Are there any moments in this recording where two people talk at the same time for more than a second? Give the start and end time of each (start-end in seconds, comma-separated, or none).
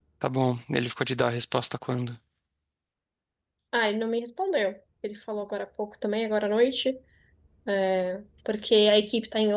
none